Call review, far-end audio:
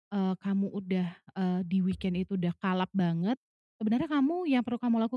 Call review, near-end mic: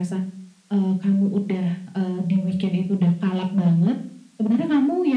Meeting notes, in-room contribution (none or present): none